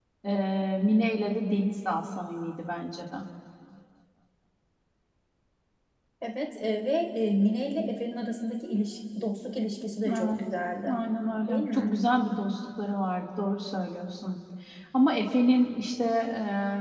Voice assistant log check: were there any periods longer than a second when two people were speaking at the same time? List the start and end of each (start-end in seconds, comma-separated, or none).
none